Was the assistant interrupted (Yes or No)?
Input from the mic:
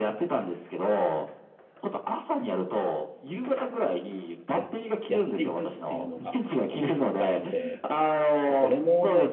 Yes